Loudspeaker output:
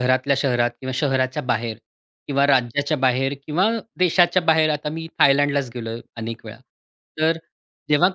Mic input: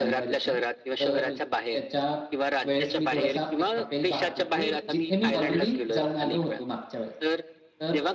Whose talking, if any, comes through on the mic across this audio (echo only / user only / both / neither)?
both